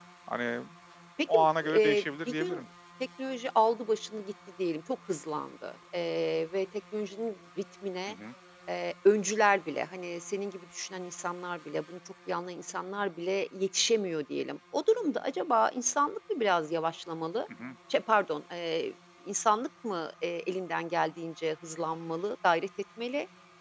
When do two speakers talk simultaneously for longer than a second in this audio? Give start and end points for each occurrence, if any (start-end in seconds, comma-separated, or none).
1.3-2.6